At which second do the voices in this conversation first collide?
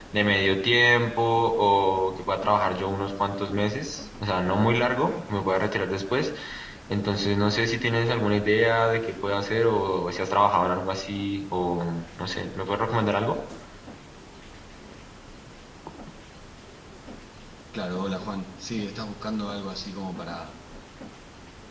none

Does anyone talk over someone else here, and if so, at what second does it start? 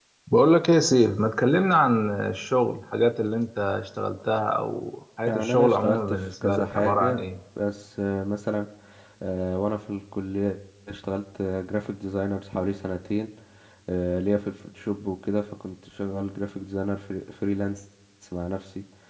5 s

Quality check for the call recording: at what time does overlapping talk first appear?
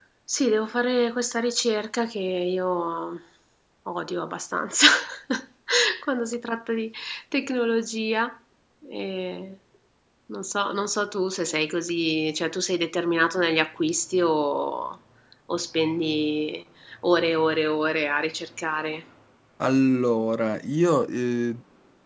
none

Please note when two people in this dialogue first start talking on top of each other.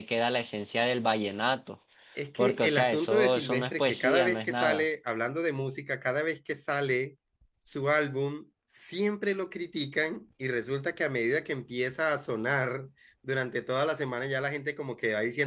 2 s

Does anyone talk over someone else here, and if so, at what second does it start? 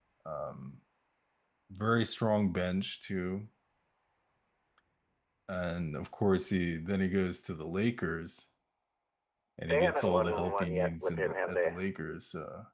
10 s

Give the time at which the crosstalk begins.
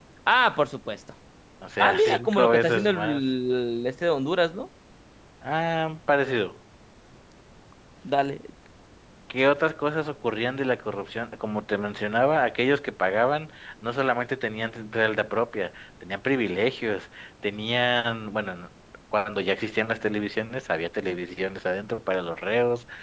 2 s

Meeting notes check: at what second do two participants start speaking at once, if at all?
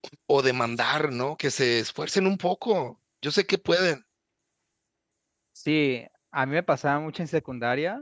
none

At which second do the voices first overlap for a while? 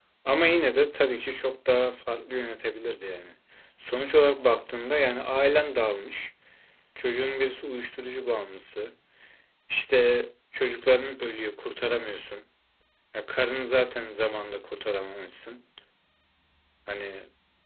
none

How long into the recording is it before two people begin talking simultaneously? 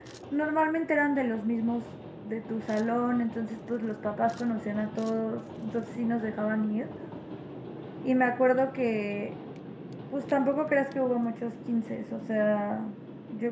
none

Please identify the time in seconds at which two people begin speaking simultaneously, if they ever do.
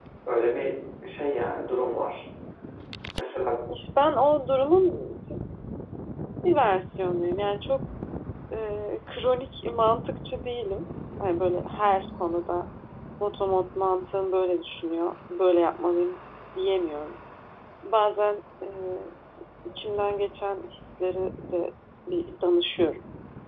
none

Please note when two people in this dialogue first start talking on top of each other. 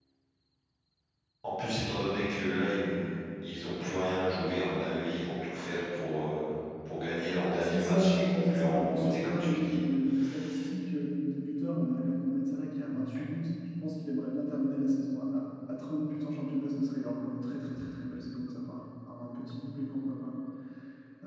8 s

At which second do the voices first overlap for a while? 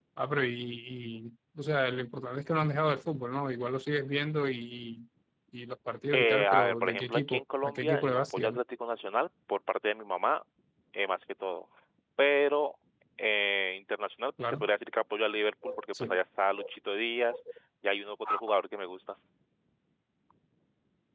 6 s

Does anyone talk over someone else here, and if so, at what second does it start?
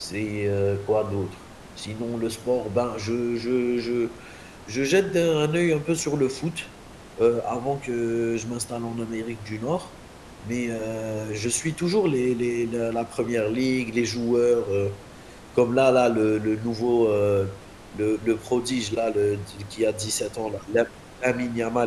none

